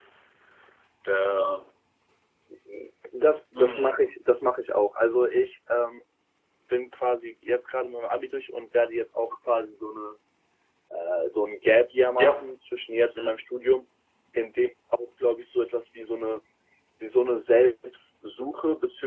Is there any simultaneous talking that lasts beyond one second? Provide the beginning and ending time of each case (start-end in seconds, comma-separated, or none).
none